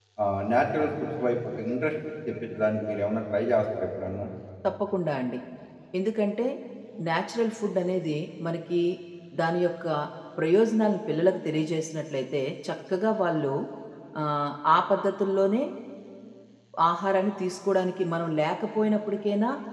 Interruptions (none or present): none